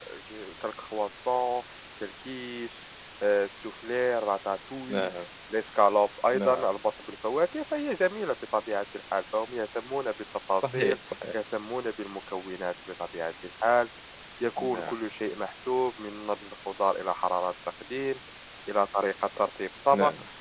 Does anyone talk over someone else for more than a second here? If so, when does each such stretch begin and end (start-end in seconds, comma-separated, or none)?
none